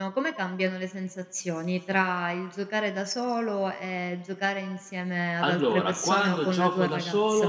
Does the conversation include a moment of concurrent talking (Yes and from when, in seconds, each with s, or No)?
Yes, from 5.4 s